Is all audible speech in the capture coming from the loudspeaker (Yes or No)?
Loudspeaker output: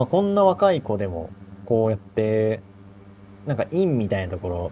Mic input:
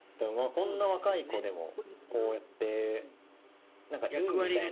No